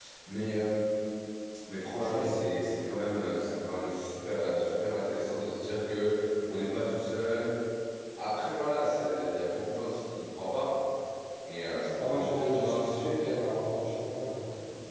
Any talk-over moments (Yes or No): Yes